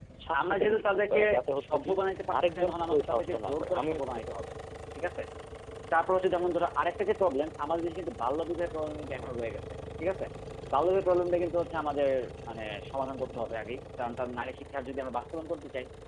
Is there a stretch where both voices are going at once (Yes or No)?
Yes